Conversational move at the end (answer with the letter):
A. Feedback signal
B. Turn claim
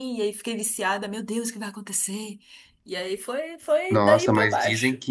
B